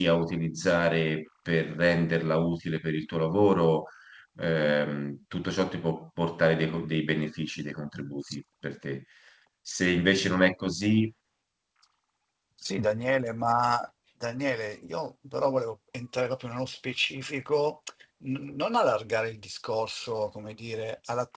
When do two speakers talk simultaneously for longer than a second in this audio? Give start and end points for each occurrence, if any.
none

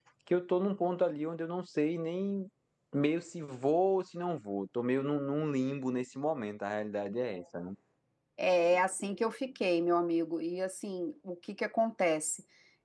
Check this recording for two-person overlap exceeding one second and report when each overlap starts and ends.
none

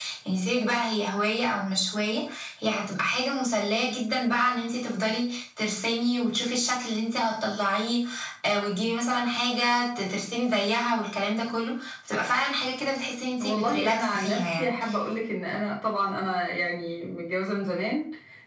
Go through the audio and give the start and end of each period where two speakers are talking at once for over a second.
13.4-14.8

